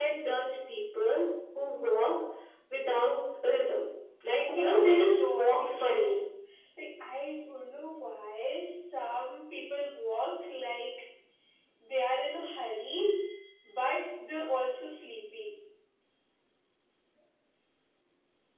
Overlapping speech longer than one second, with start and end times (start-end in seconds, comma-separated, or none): 4.5-6.2